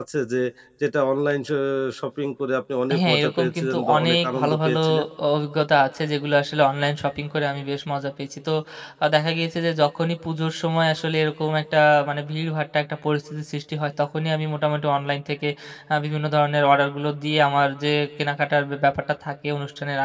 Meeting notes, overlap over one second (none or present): present